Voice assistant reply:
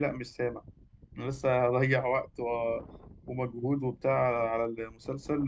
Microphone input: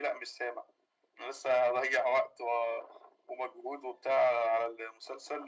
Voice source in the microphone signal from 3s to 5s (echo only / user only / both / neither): echo only